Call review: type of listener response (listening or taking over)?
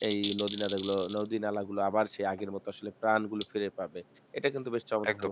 listening